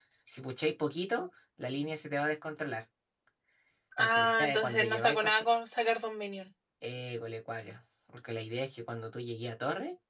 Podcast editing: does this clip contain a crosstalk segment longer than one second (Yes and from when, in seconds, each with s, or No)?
Yes, from 4.0 s